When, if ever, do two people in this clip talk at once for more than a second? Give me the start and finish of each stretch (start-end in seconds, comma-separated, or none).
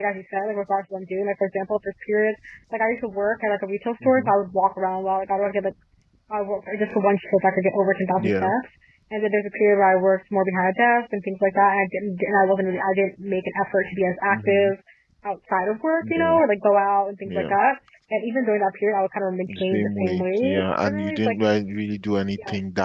19.5-21.4